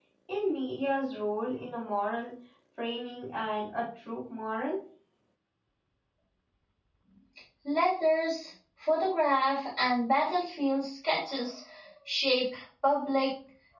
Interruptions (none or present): none